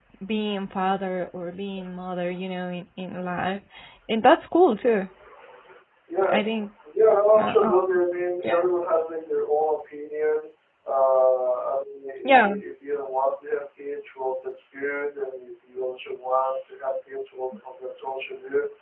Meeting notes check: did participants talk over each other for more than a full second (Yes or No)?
No